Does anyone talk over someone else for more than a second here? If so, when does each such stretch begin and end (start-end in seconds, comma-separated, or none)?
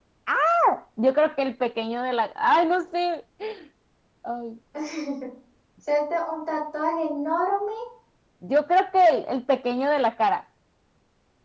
none